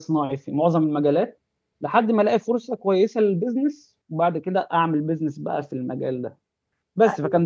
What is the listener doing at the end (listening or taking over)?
listening